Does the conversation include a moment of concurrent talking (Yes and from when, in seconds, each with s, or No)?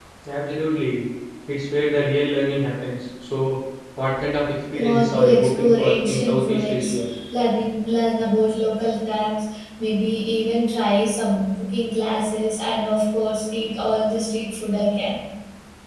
Yes, from 4.8 s